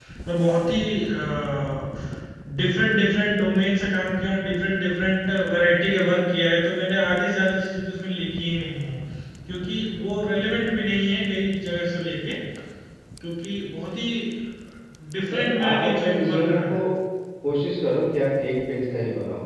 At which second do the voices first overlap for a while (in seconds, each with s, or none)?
15.3 s